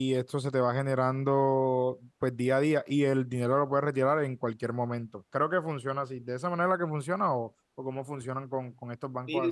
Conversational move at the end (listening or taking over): taking over